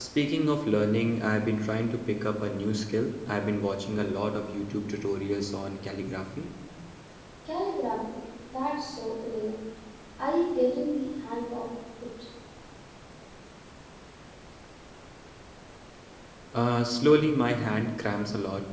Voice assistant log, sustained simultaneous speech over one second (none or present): none